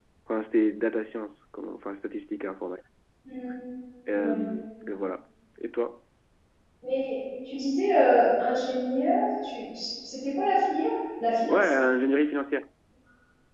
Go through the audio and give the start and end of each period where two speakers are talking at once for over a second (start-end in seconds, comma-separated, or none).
none